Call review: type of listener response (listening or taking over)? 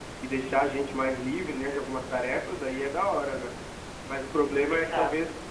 listening